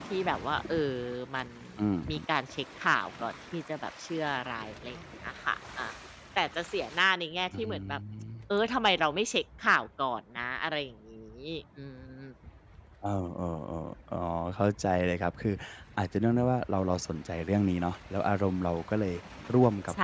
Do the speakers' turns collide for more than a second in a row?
No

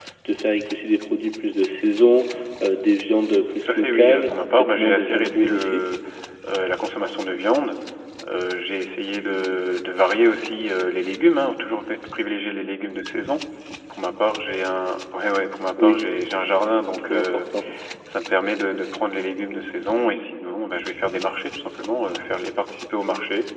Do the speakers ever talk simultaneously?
Yes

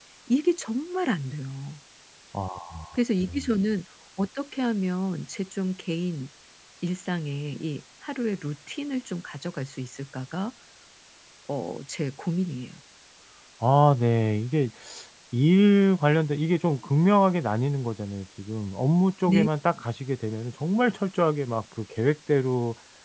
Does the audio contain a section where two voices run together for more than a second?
No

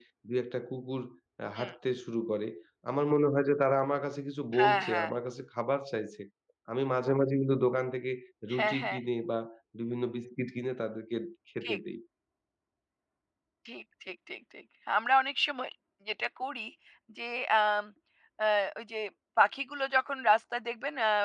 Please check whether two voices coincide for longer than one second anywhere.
No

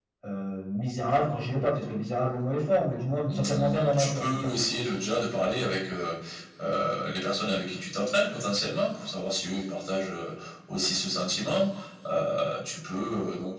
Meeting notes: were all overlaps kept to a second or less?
No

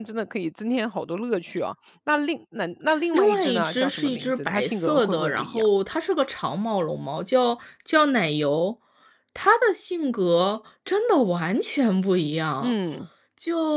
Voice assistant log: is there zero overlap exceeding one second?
No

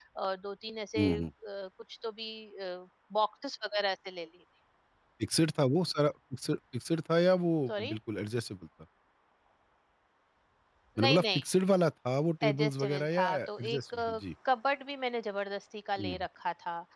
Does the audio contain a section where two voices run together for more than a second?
Yes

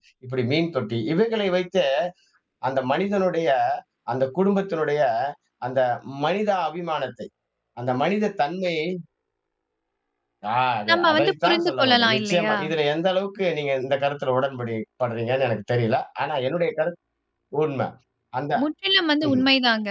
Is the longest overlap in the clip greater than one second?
Yes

